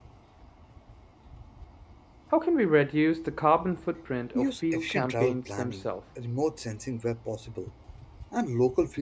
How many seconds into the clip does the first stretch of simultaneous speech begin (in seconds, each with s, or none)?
4.3 s